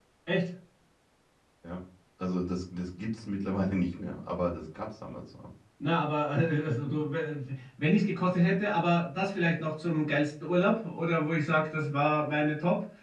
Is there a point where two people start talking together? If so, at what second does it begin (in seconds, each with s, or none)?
none